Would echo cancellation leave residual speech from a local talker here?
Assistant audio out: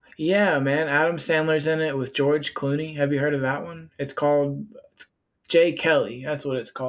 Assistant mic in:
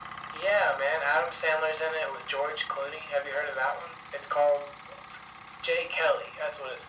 No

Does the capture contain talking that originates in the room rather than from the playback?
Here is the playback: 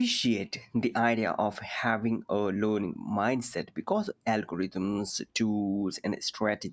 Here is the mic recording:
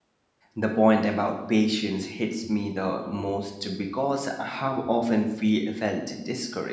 Yes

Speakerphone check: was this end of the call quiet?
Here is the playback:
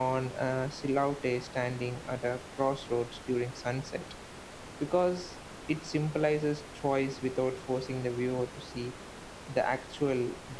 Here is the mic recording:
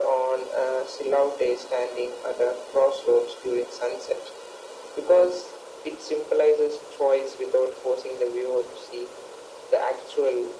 Yes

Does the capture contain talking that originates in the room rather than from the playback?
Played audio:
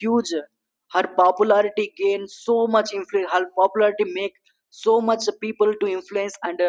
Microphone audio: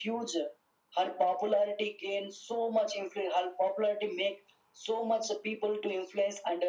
No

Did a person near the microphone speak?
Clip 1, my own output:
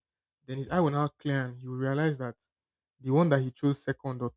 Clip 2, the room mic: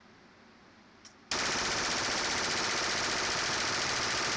No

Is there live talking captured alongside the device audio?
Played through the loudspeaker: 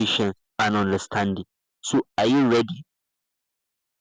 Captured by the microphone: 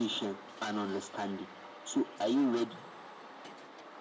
No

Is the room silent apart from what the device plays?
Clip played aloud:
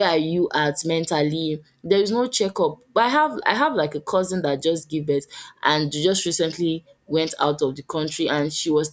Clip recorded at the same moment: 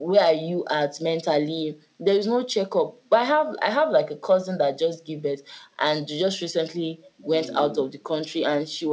No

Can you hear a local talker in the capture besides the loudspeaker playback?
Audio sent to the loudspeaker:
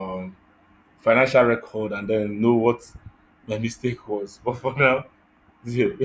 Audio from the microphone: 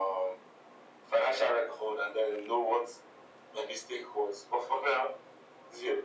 No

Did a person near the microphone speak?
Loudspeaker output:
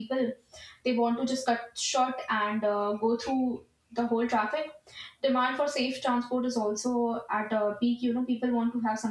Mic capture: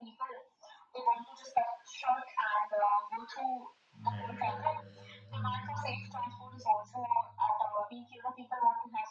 Yes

